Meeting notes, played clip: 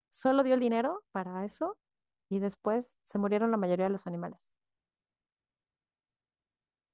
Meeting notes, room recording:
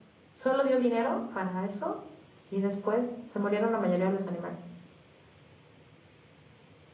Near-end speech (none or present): none